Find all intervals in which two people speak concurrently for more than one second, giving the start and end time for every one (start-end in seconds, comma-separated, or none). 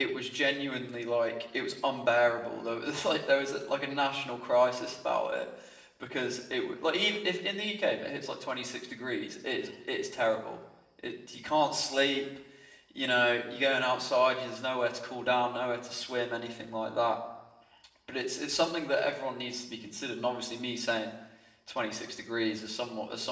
none